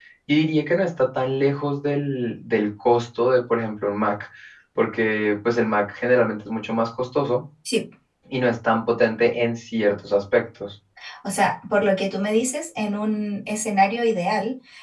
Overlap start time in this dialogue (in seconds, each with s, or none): none